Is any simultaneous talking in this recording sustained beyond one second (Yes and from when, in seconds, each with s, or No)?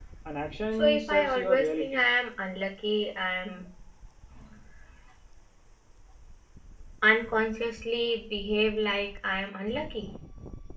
Yes, from 0.8 s